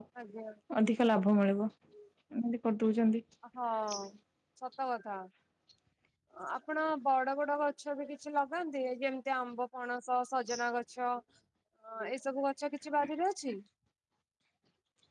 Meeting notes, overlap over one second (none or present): none